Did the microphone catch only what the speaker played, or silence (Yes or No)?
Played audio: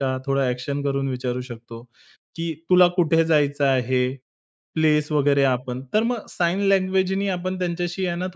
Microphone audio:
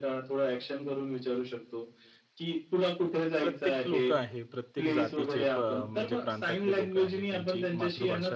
No